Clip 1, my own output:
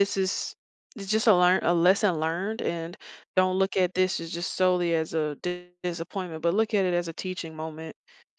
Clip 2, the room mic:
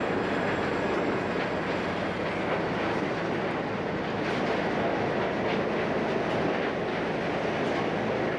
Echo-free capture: Yes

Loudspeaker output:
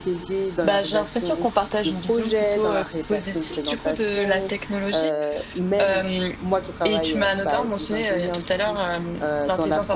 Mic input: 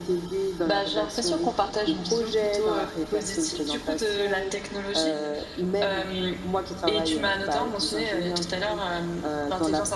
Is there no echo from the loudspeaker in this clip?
No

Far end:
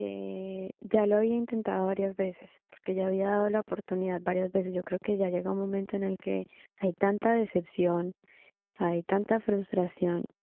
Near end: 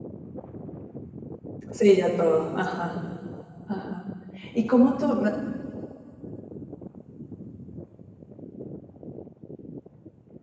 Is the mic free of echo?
Yes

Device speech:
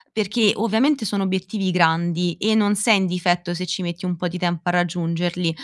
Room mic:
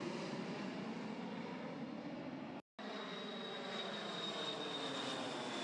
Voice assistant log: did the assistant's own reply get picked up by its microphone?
No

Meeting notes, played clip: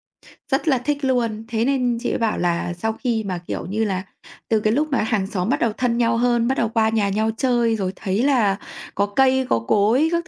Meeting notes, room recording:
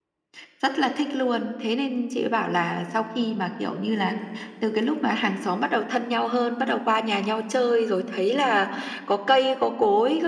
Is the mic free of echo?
No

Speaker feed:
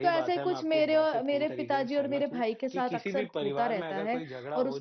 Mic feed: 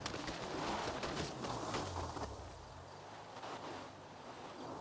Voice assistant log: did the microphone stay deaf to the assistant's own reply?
Yes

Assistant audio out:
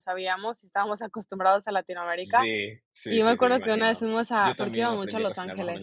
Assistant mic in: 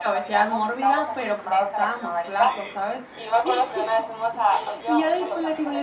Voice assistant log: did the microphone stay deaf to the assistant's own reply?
No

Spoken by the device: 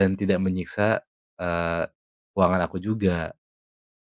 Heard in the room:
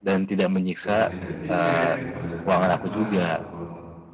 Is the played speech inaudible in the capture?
No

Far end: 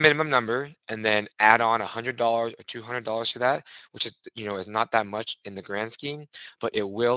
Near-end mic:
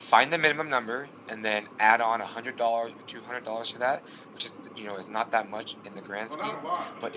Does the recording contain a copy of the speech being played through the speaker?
Yes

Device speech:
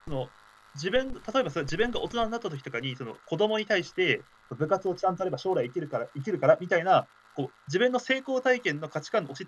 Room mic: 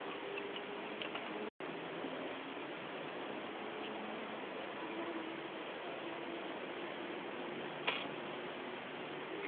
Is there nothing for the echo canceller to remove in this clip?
Yes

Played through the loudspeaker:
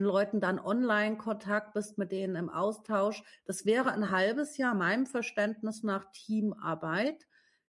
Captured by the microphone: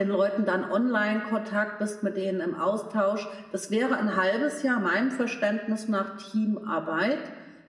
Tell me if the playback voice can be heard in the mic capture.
Yes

